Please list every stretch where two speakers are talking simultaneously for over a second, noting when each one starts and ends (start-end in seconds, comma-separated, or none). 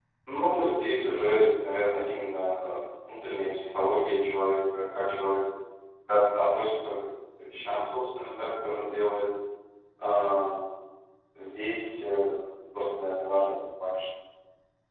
none